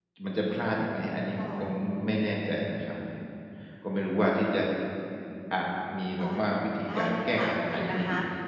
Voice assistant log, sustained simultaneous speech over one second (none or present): present